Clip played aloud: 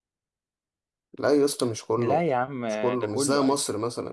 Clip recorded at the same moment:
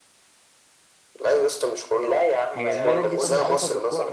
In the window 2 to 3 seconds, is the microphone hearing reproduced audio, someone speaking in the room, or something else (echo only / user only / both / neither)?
both